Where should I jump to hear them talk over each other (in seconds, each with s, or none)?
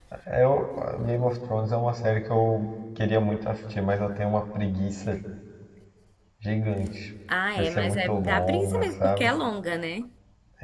7.6 s